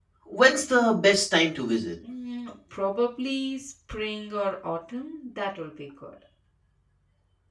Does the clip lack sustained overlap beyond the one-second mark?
Yes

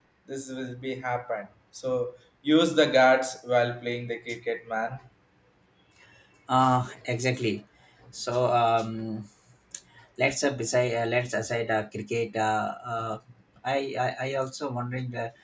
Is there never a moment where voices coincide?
Yes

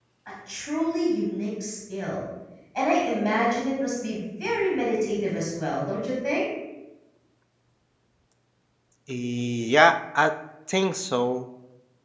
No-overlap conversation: Yes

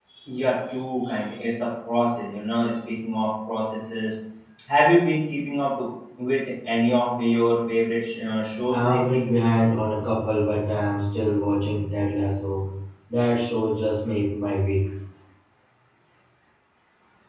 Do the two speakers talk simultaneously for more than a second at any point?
No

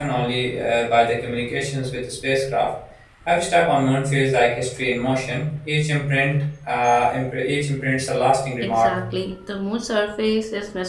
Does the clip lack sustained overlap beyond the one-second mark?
Yes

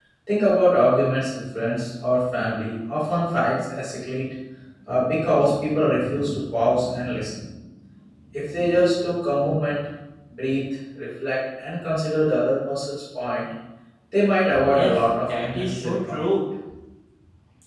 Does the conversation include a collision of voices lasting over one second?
Yes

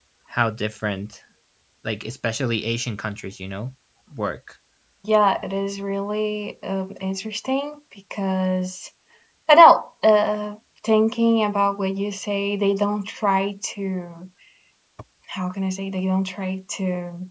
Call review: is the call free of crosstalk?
Yes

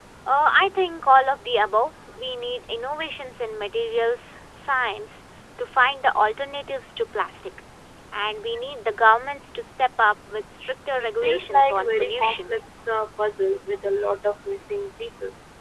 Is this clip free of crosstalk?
No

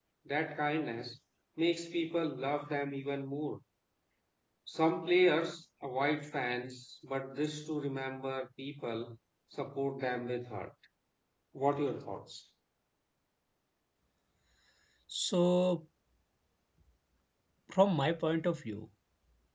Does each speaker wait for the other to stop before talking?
Yes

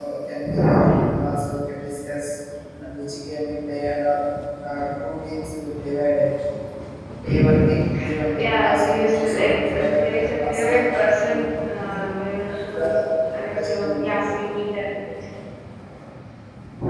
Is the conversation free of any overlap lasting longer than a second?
No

